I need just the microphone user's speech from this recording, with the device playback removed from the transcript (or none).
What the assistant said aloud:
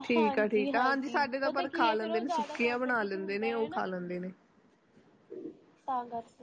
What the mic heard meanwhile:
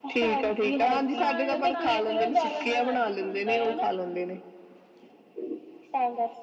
ਪਾਣੀ- ਪਾਣੀ ਪੀ-ਪੀ ਕੇ ਬੰਦਾ ਰੱਜ ਜਾਂਦਾ ਆ।